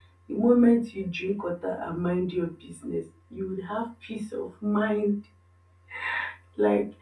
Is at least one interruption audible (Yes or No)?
No